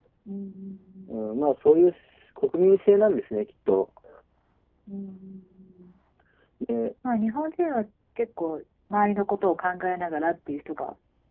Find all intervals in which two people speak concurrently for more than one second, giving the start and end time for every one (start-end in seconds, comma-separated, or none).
none